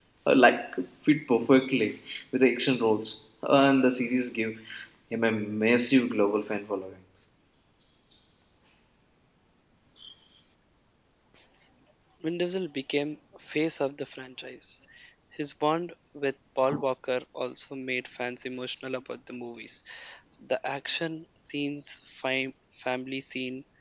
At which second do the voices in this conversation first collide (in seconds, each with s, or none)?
none